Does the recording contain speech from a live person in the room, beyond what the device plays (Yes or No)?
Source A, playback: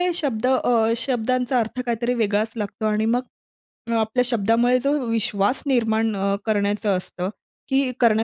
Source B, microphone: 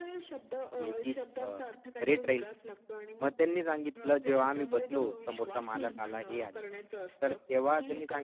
Yes